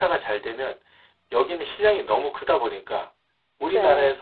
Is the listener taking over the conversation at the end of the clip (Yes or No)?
No